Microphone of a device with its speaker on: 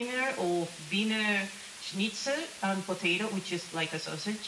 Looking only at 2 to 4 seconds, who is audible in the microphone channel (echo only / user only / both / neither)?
echo only